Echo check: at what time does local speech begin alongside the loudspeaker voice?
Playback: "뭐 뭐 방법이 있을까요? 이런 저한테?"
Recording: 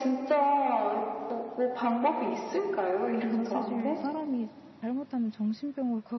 3.2 s

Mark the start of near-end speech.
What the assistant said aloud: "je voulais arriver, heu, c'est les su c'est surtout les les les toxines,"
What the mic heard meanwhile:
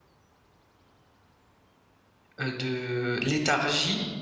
2.4 s

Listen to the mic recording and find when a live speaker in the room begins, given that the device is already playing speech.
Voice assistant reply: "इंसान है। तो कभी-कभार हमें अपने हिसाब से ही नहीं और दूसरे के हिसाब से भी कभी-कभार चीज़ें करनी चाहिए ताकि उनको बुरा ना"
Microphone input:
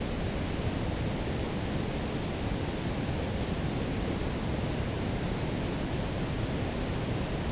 none

